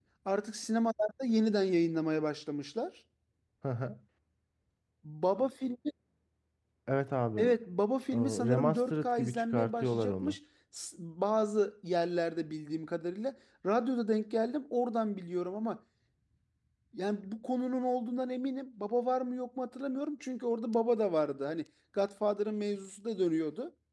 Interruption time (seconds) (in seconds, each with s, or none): 8.1 s